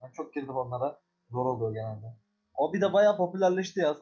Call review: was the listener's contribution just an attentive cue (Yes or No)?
Yes